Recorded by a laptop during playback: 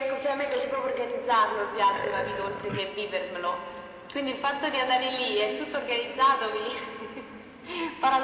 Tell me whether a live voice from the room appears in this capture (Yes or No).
Yes